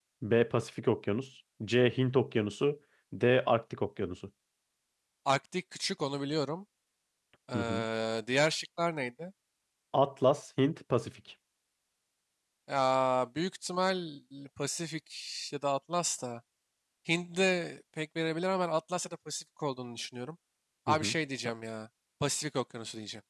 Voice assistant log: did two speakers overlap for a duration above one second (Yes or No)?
No